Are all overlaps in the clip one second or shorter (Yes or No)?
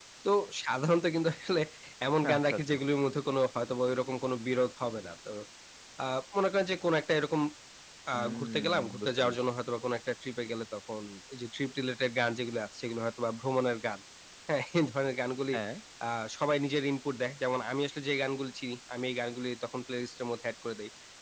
No